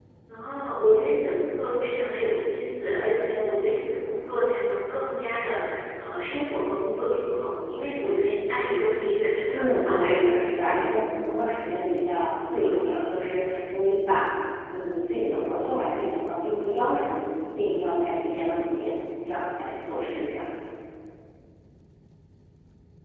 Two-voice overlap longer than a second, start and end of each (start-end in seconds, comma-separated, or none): 9.5-10.8